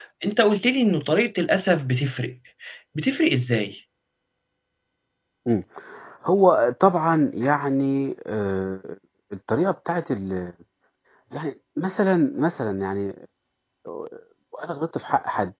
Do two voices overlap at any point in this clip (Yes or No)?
No